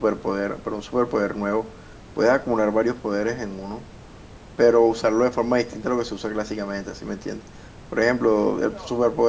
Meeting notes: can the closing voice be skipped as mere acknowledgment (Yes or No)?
Yes